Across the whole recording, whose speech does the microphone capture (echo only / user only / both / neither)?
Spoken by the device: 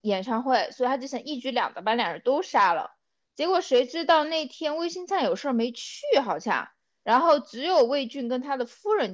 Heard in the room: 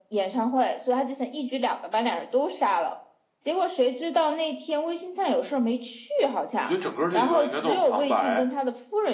both